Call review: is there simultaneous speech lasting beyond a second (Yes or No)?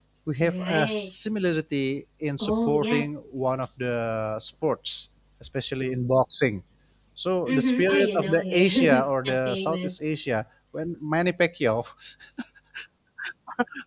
Yes